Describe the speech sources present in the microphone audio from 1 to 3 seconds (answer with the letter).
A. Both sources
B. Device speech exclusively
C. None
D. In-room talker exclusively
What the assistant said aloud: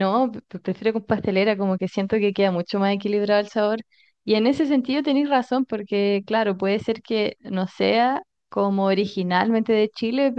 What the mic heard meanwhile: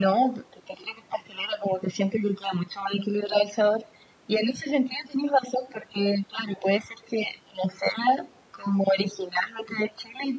B